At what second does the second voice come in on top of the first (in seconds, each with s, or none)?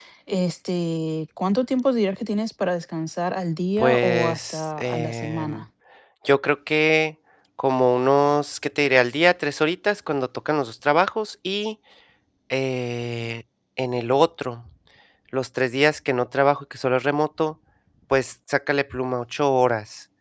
3.8 s